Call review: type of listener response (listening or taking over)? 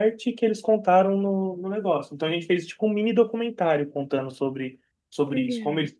listening